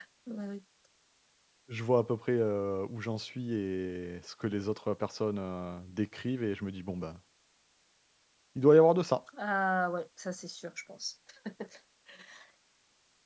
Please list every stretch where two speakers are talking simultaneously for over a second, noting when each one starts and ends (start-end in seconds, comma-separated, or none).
none